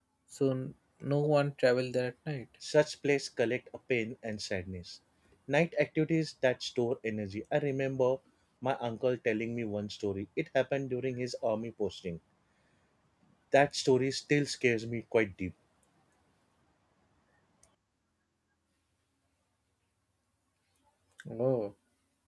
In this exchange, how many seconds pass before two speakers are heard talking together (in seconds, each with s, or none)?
none